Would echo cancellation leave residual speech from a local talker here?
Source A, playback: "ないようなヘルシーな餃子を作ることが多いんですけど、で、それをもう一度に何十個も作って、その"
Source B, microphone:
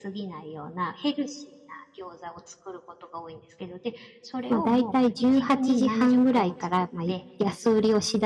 Yes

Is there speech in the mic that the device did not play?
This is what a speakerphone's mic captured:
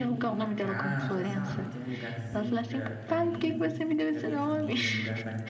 Yes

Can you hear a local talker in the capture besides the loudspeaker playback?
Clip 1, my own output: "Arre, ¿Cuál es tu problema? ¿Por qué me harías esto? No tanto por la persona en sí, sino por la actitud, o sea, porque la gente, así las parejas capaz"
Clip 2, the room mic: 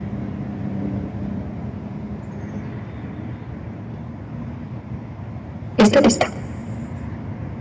Yes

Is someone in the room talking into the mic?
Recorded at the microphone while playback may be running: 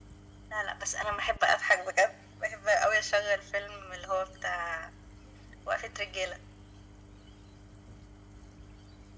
No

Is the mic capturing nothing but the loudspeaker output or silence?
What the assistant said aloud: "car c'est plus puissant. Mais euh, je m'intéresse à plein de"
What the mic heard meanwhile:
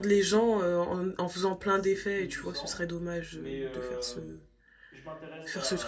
No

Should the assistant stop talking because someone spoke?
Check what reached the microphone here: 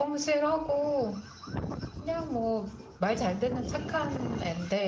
Yes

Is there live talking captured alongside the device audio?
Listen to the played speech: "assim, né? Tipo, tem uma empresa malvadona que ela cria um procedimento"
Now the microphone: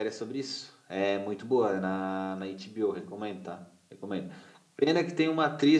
Yes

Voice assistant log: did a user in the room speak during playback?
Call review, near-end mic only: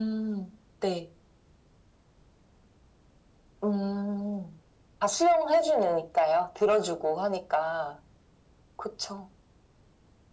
No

